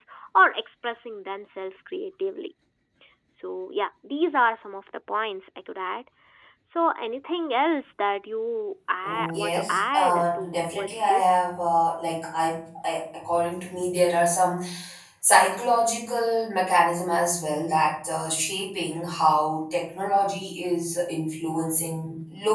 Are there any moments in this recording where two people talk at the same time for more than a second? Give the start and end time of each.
9.0-11.4

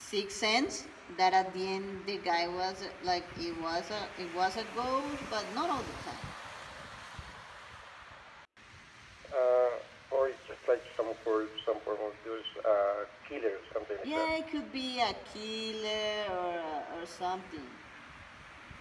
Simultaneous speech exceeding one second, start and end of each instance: none

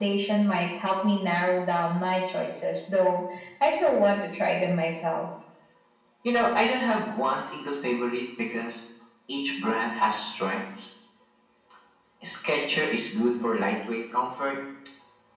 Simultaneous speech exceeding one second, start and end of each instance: none

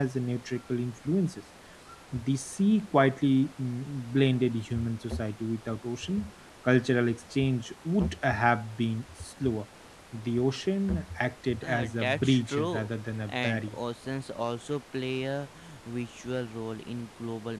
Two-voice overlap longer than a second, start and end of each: 11.6-12.9

